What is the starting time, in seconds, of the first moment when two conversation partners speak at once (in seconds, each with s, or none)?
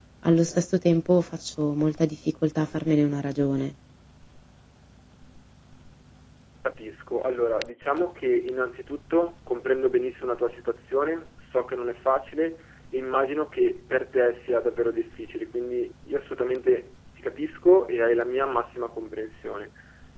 none